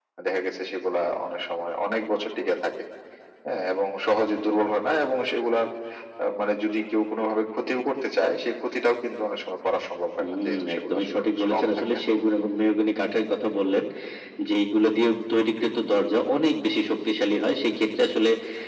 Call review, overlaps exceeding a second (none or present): present